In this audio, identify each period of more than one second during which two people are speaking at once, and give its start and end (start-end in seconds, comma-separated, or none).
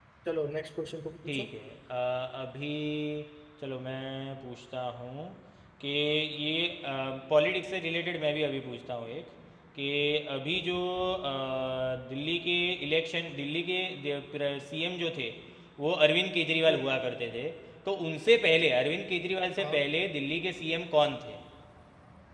none